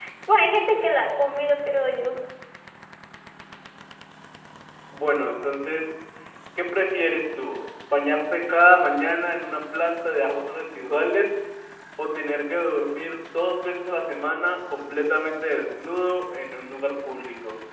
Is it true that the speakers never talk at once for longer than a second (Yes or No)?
Yes